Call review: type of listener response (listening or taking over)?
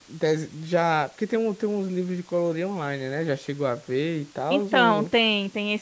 taking over